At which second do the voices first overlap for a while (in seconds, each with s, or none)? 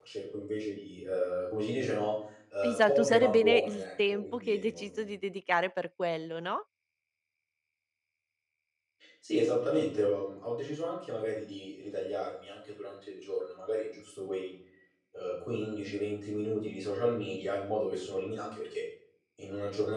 2.6 s